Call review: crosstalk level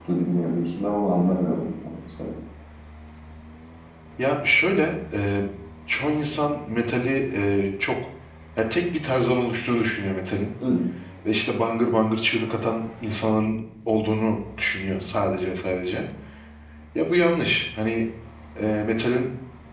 none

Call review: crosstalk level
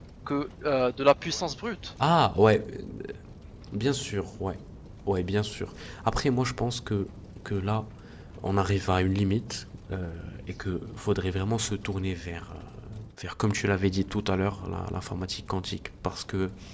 none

